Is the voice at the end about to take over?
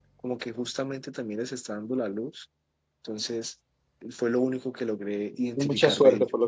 Yes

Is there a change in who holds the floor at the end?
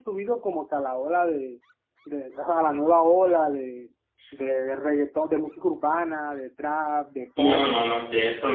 Yes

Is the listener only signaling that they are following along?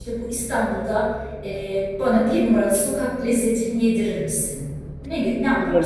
No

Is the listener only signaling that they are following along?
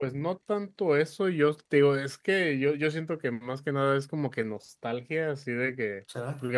Yes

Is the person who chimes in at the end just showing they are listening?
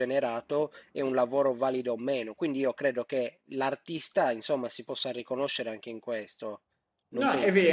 No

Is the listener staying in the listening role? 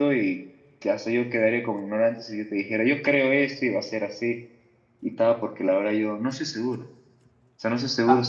Yes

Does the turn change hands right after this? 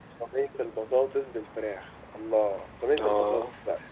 No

